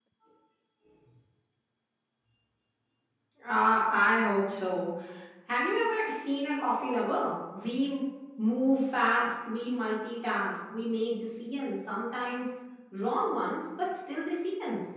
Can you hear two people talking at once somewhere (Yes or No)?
No